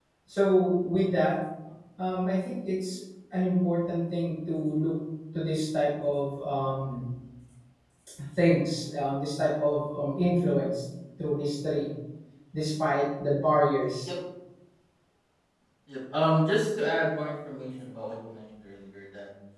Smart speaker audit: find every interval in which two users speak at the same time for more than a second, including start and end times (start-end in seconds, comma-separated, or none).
none